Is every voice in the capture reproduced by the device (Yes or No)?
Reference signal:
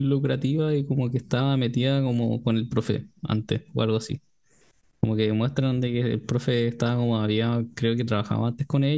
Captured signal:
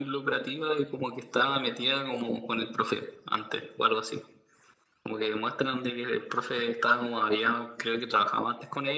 Yes